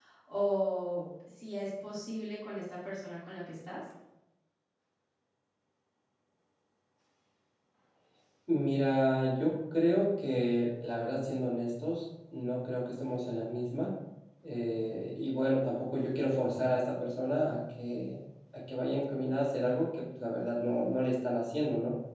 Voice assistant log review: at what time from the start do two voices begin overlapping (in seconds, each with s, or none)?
none